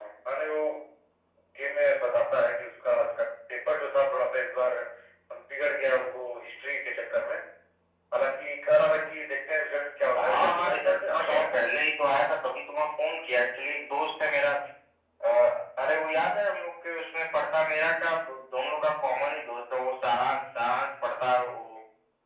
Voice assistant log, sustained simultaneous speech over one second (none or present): present